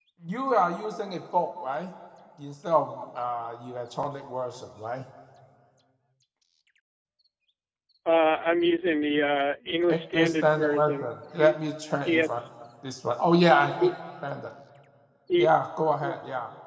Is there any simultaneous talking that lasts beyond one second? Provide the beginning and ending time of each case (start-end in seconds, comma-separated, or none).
9.9-11.6